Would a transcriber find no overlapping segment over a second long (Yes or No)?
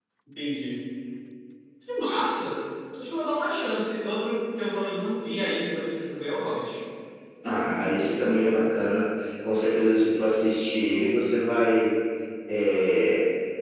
Yes